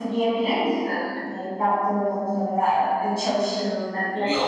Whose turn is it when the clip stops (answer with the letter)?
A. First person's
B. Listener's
B